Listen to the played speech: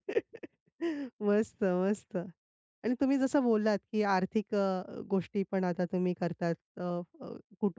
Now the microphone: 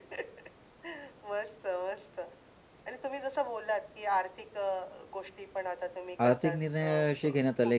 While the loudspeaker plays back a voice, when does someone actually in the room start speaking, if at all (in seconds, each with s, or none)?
6.2 s